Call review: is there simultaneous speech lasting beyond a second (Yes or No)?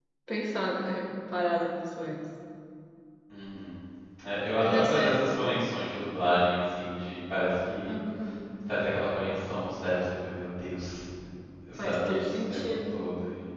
Yes